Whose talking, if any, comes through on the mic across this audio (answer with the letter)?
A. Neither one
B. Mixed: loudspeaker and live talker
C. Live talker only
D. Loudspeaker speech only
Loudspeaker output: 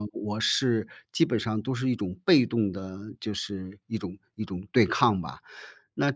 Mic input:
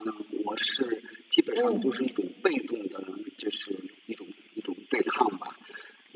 B